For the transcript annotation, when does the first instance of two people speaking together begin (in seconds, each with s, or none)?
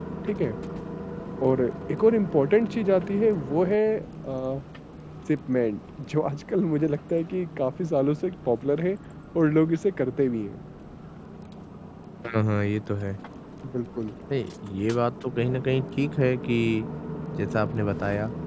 none